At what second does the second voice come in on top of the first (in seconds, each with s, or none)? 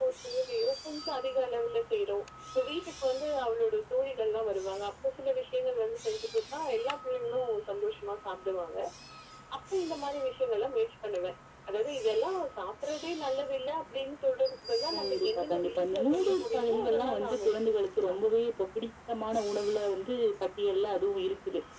14.9 s